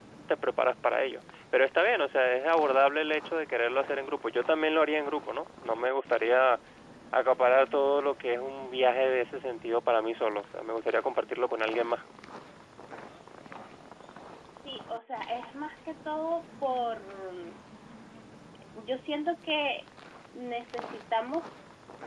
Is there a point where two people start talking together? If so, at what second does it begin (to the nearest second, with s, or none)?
none